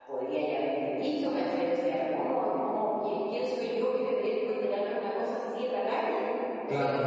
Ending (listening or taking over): listening